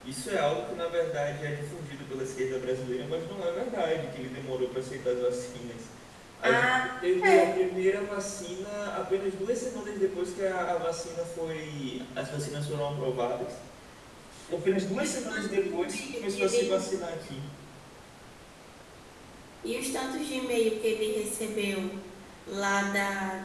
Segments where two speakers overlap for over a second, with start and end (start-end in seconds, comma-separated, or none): 15.0-16.8